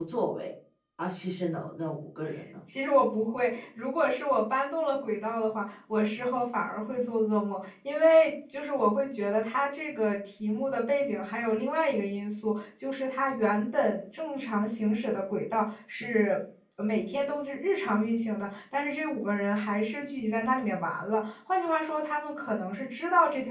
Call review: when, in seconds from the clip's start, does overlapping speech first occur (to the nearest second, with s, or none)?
none